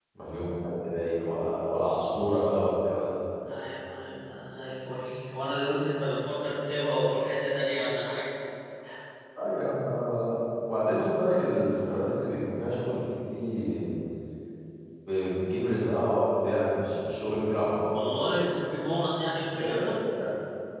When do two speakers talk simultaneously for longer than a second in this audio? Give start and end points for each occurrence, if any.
none

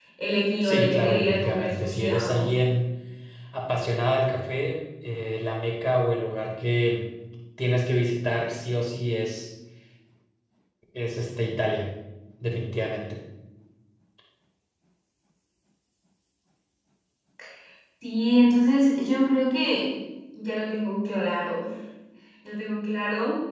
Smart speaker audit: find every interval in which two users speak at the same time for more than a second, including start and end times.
0.6-2.5

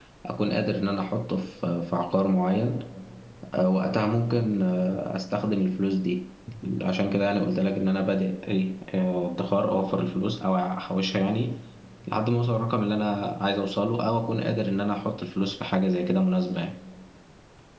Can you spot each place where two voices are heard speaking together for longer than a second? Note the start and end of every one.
none

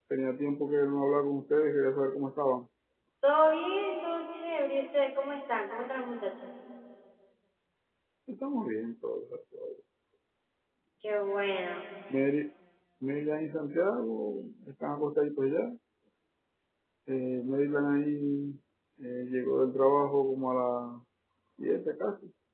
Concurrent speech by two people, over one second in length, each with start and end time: none

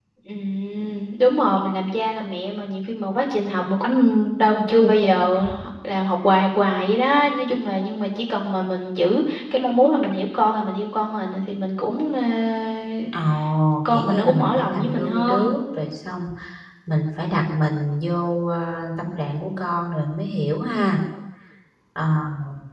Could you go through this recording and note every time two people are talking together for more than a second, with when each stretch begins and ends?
13.9-15.5

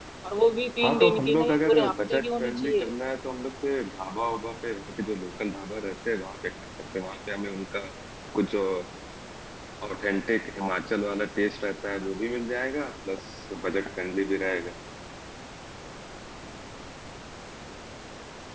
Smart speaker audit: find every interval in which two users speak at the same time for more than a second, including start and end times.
0.8-2.9

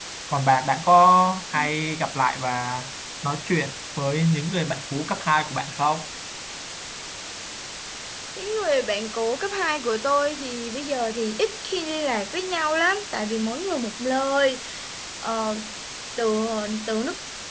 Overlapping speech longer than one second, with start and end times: none

